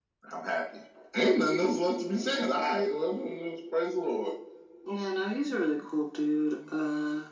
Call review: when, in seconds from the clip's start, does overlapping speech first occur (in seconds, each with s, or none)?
none